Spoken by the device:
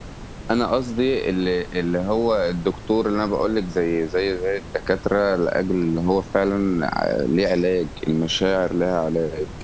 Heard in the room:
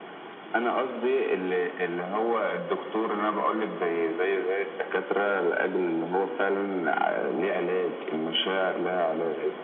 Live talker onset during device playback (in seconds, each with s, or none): none